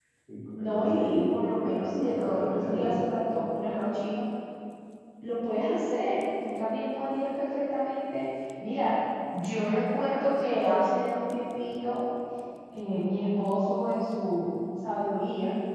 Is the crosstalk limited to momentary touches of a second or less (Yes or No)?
No